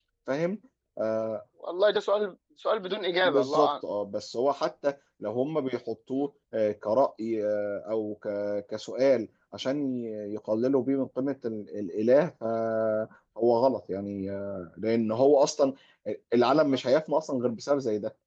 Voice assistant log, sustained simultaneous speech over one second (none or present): none